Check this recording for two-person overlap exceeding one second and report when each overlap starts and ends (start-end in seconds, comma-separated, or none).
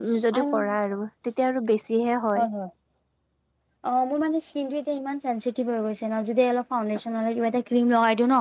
none